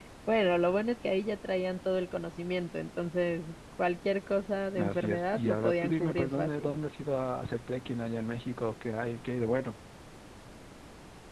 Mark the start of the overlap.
4.8 s

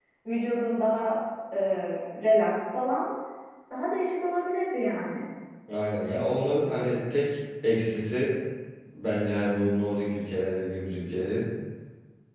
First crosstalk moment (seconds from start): none

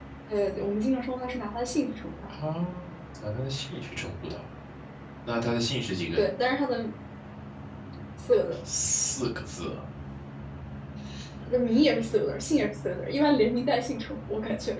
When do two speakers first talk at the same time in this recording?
none

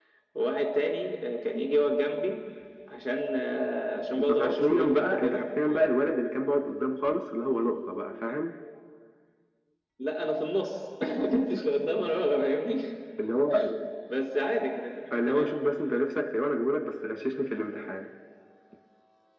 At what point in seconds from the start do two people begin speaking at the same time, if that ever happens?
4.2 s

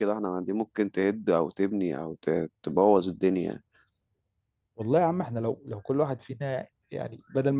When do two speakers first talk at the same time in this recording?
none

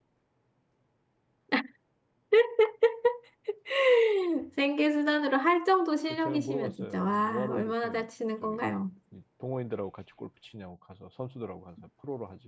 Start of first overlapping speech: 6.1 s

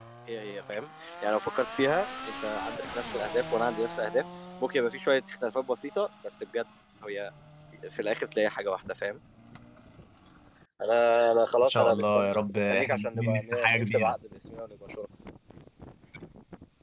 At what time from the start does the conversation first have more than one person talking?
11.6 s

